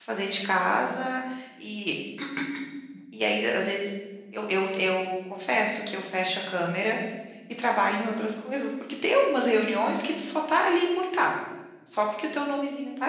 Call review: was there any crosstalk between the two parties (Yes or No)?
No